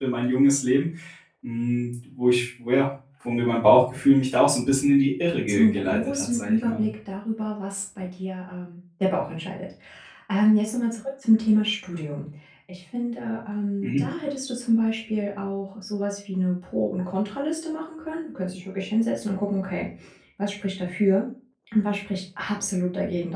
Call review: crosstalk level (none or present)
present